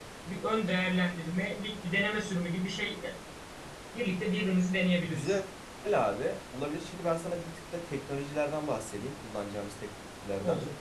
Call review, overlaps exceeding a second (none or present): none